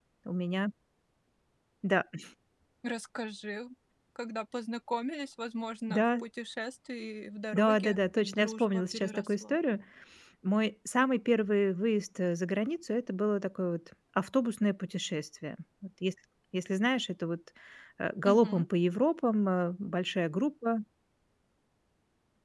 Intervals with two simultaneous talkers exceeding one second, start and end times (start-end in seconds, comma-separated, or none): 7.5-9.6